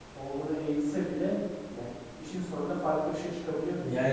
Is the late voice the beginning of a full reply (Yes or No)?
Yes